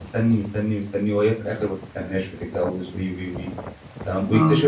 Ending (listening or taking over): listening